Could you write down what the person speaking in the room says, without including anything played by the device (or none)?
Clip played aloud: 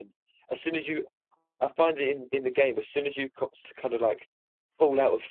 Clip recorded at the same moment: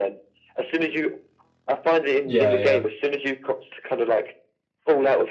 Yeah,